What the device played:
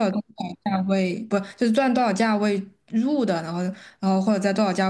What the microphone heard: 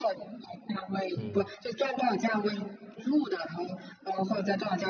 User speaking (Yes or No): Yes